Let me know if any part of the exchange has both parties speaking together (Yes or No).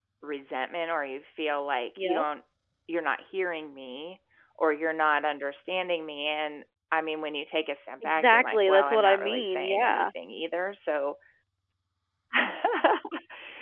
Yes